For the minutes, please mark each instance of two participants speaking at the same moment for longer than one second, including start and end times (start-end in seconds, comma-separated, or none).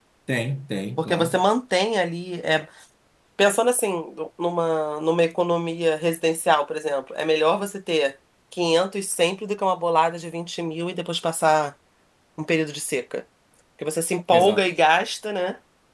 none